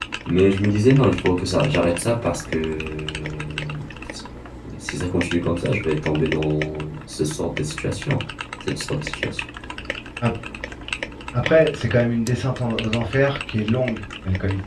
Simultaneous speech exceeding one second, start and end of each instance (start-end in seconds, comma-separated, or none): none